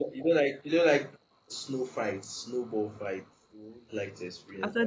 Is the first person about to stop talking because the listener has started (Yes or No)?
Yes